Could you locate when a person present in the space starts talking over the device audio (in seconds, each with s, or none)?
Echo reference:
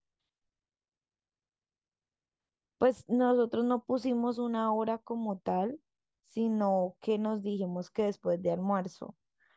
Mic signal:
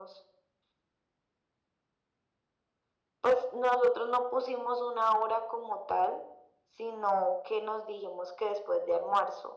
none